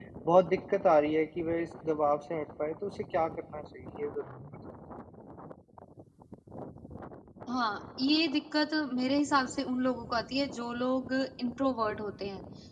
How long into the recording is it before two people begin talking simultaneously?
none

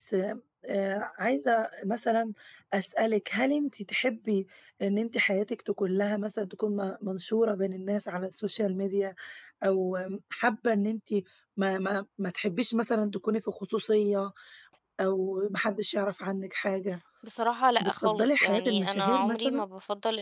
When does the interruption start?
18 s

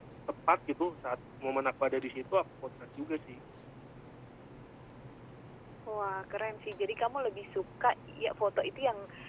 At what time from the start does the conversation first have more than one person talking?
none

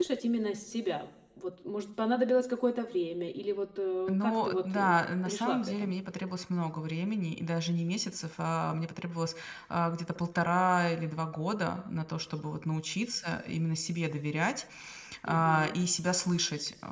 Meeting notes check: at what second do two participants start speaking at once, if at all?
4 s

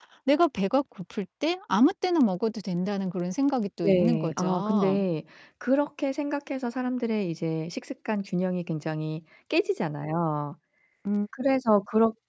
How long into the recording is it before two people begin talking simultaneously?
4 s

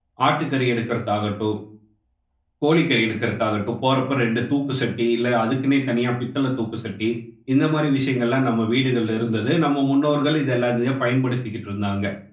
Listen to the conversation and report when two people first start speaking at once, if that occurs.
none

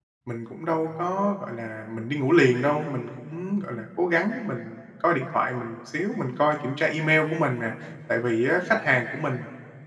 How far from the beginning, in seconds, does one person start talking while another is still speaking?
none

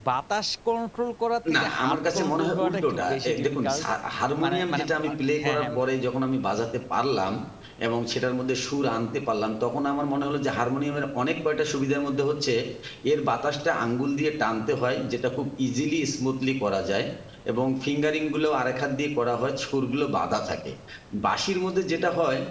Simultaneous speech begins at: 2 s

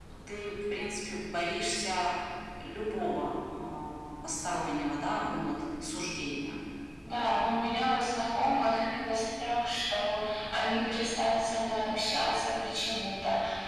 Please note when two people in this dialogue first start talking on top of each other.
none

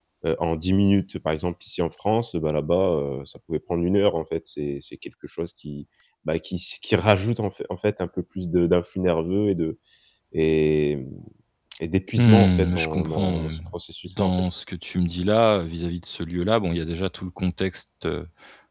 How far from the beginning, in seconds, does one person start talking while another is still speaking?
12 s

